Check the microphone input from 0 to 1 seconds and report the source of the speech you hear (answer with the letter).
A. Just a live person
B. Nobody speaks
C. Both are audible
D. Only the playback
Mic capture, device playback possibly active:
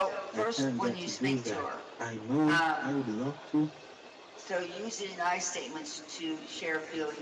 C